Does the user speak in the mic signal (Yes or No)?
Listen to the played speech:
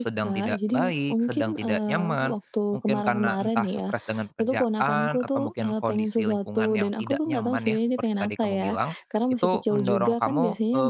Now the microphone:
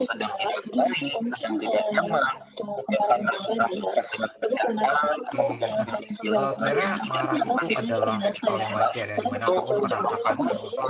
Yes